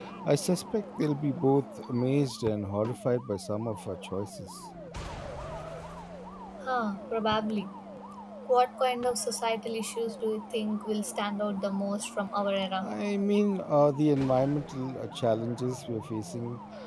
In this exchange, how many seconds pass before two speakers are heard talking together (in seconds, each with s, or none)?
none